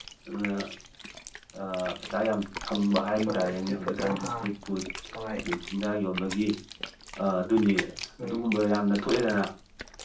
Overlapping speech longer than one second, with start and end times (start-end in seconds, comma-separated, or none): 3.3-4.5